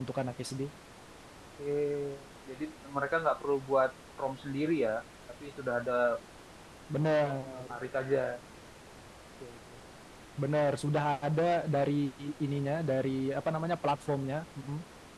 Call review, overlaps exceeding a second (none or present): none